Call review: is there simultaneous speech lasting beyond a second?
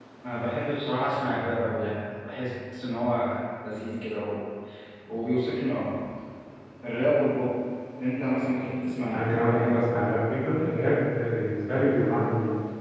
No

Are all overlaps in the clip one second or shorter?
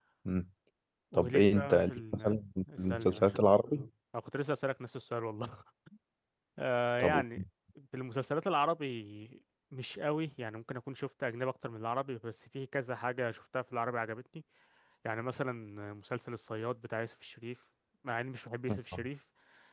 No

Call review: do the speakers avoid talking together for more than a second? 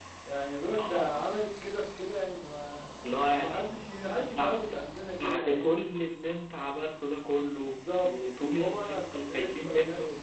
No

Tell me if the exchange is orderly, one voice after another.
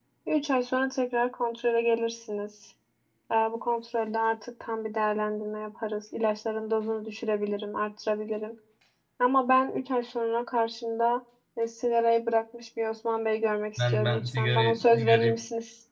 No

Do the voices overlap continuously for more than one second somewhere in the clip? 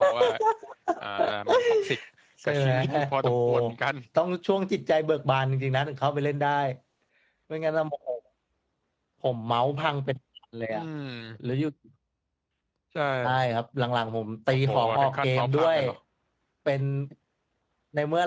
Yes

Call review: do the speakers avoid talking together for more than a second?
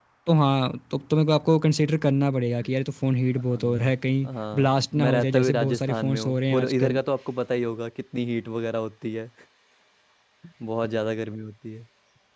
No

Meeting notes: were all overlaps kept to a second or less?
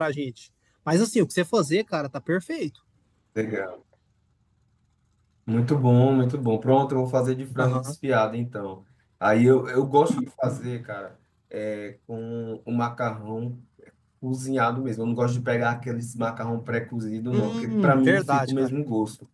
No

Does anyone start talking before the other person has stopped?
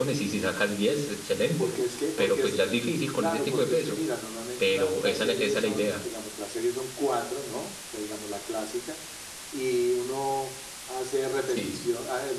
Yes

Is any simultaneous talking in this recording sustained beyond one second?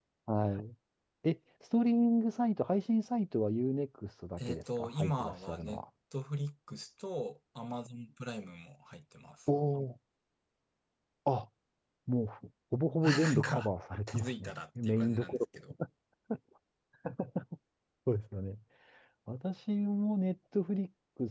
Yes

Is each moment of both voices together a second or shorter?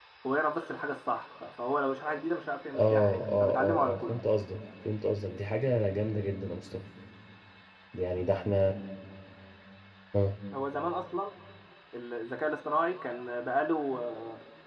No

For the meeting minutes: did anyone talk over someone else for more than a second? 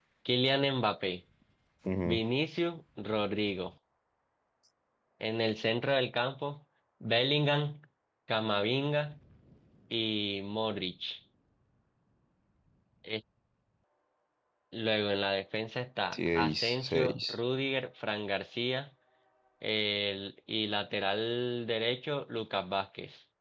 Yes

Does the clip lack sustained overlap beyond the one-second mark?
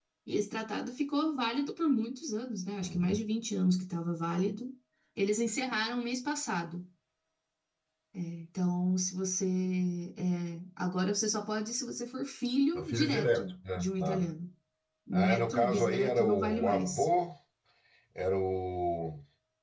No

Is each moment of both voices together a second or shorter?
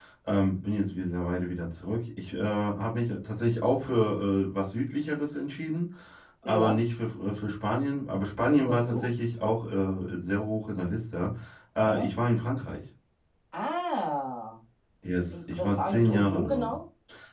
No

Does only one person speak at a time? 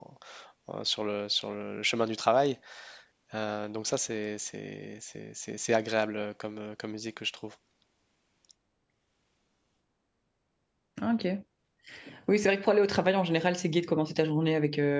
Yes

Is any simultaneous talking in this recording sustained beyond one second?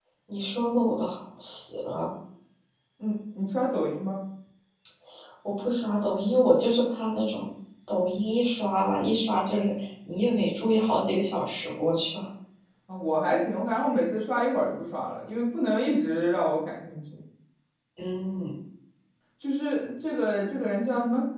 No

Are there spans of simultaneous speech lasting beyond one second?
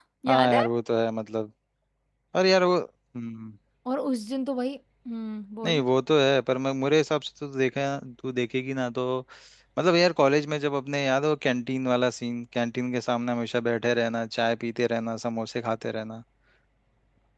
No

